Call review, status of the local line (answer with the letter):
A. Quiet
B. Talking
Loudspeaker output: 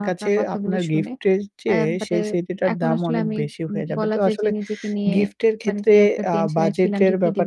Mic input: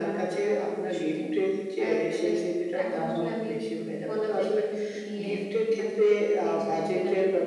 A